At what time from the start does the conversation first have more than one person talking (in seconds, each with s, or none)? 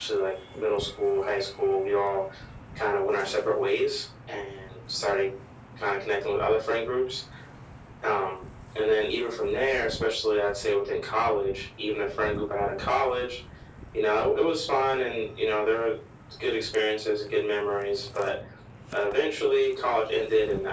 none